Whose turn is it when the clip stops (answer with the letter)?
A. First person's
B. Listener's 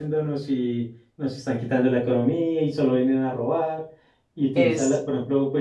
A